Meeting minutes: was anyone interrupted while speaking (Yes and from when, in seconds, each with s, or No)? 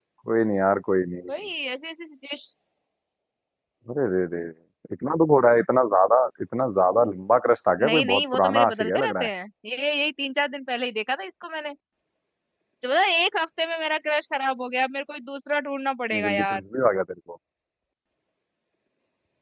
Yes, from 7.8 s